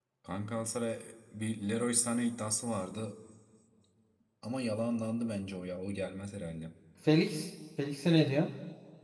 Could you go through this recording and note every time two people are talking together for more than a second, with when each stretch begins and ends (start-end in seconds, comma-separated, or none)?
none